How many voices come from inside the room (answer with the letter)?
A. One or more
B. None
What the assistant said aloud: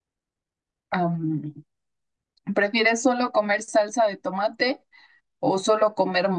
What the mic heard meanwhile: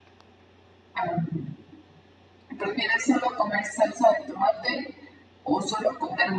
B